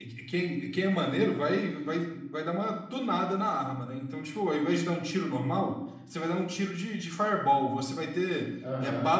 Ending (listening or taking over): listening